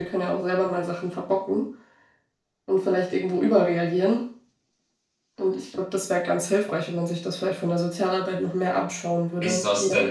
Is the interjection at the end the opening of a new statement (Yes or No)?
Yes